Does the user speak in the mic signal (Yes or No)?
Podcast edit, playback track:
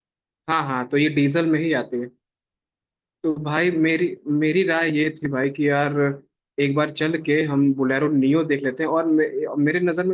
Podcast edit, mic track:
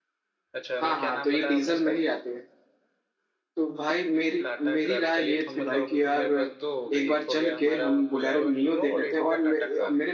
Yes